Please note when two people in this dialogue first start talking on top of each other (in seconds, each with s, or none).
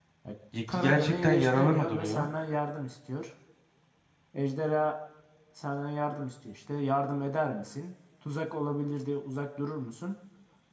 0.7 s